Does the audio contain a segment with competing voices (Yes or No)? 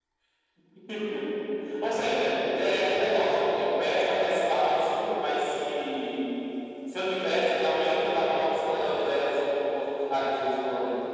No